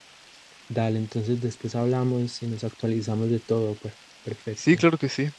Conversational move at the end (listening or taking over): taking over